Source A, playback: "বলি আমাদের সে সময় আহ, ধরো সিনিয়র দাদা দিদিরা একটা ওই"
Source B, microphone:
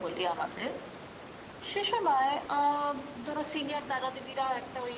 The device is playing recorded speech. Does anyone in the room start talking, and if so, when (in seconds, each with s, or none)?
none